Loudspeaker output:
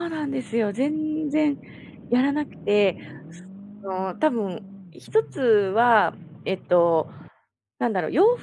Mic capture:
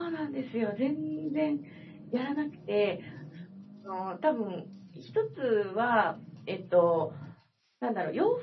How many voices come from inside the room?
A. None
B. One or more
A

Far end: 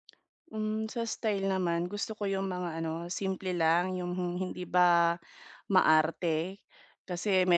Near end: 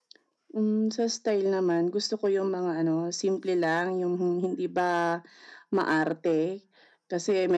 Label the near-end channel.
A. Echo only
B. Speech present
A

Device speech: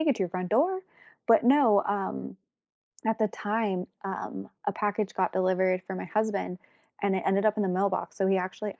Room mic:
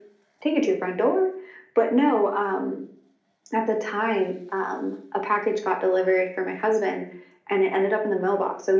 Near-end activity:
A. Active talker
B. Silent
B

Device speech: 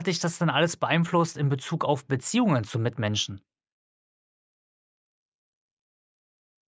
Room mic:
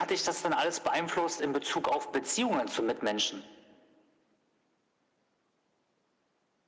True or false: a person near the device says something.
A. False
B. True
A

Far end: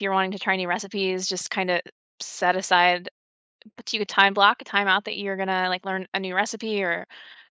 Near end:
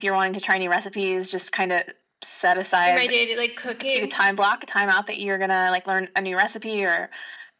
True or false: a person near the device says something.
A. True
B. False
A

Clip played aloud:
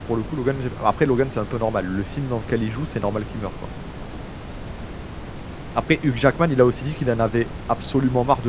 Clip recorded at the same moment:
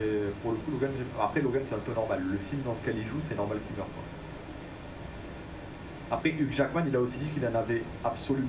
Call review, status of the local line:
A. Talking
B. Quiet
B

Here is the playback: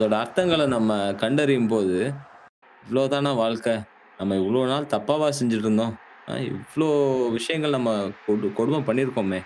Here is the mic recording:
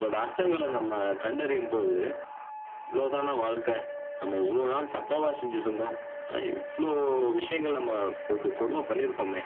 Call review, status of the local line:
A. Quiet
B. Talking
A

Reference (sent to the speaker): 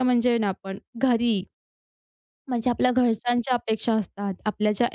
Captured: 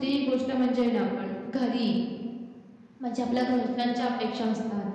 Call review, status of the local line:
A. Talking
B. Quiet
B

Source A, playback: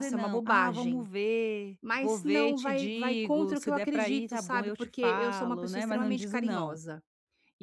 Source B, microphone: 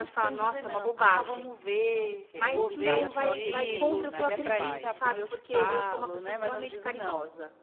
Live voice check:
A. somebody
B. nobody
A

